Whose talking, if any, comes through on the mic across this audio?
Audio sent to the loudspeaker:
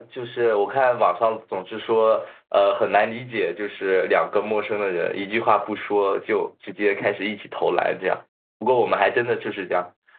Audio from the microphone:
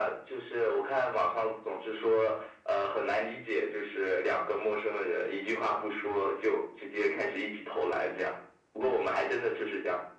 echo only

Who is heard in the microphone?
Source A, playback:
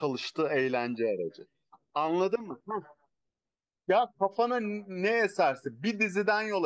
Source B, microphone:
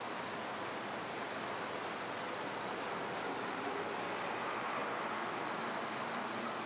neither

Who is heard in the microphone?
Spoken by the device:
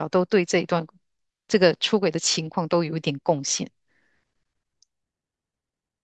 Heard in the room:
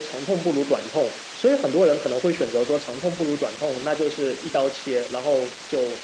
user only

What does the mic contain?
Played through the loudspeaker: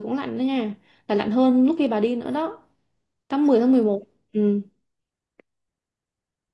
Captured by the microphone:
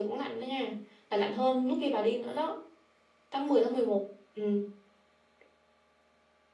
echo only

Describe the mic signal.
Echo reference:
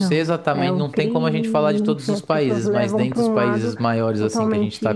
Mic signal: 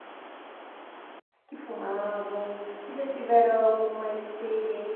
user only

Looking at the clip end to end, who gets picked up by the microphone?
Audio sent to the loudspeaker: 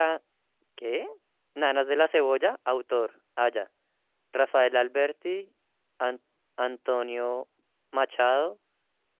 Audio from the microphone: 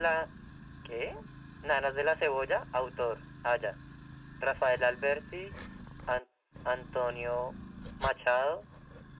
echo only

